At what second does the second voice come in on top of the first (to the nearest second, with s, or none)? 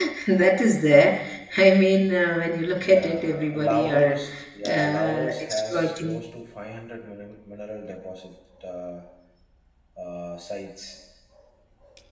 3 s